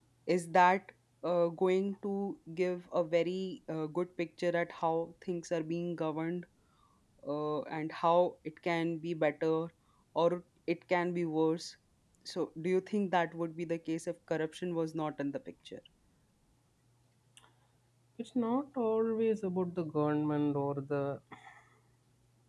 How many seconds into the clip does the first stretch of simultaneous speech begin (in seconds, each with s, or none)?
none